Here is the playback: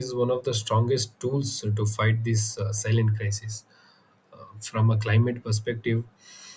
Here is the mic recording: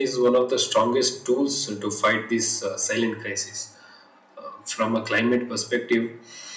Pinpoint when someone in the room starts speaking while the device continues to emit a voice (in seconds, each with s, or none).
none